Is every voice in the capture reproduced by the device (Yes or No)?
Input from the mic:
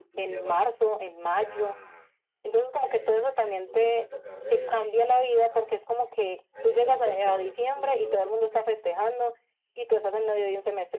No